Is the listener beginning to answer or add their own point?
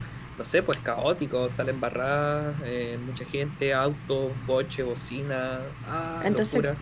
Yes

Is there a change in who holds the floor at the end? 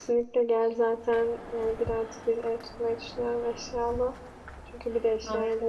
No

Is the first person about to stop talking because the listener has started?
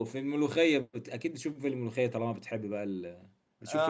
Yes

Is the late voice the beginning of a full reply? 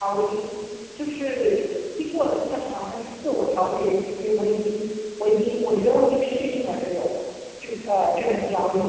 No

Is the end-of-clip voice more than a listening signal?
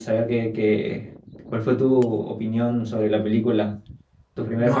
Yes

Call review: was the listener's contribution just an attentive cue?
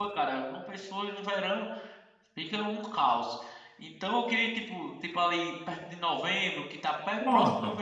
Yes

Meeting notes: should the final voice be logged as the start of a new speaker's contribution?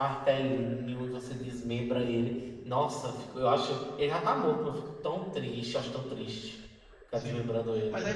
Yes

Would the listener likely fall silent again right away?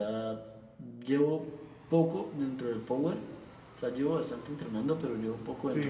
Yes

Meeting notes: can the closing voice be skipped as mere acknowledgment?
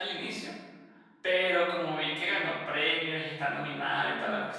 Yes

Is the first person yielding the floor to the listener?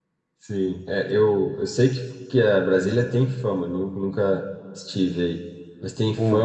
No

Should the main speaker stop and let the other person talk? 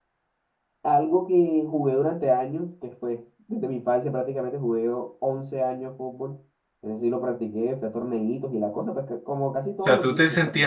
Yes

